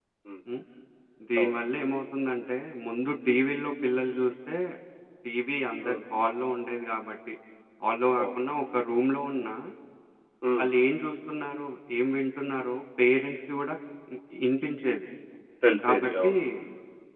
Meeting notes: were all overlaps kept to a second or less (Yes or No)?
Yes